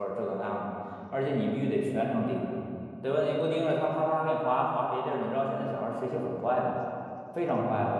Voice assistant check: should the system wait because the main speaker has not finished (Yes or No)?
Yes